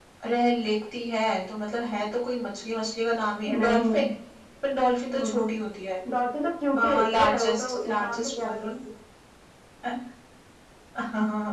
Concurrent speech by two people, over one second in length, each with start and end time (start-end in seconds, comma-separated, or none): 6.8-8.7